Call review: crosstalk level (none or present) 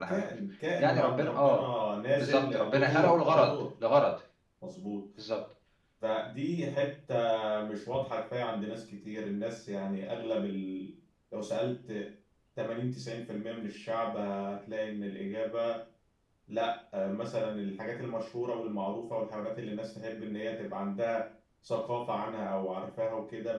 present